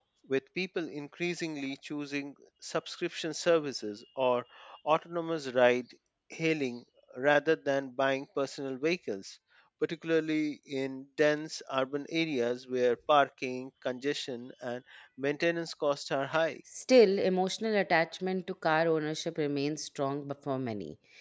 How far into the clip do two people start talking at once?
none

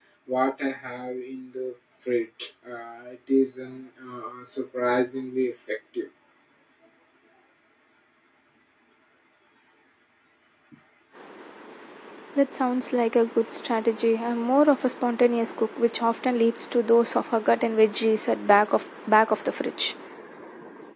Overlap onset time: none

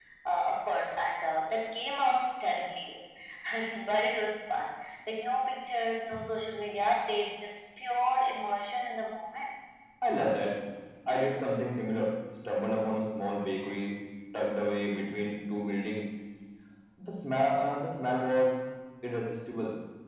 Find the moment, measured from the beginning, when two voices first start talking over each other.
none

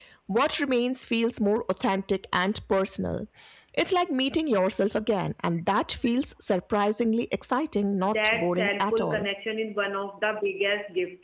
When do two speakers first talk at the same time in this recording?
8.0 s

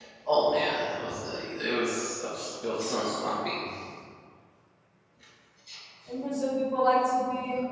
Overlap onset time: none

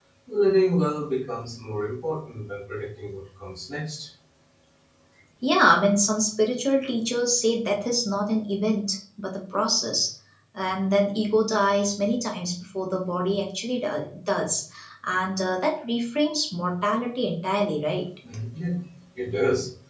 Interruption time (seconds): none

